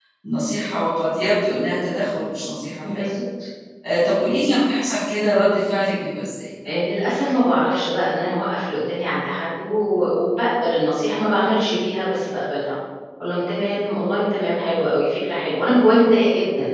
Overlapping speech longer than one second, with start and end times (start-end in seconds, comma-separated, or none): none